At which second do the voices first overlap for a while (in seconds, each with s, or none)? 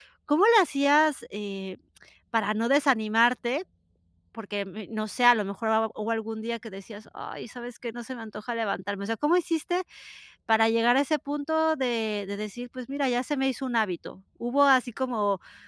none